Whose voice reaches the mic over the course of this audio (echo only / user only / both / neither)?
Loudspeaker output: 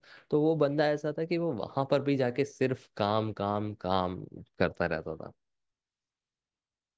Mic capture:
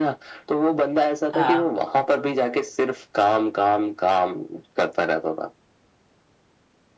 both